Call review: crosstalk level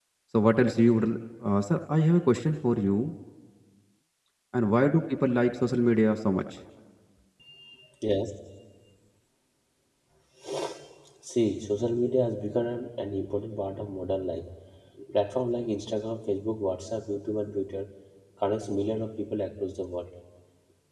none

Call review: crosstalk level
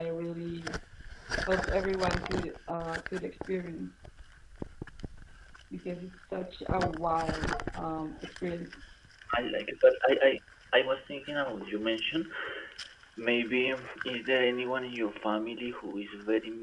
none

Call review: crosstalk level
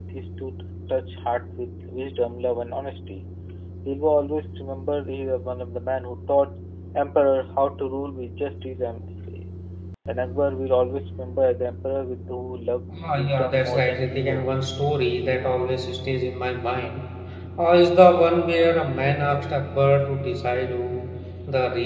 present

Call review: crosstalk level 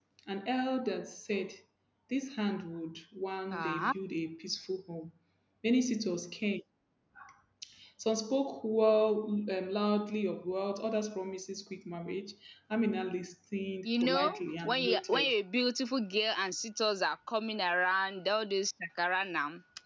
present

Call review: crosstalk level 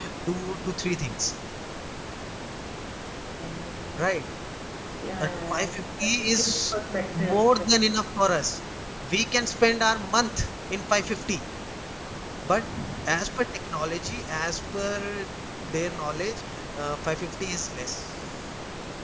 present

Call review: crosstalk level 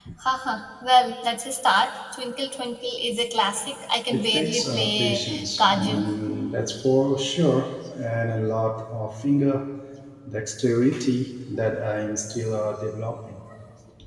present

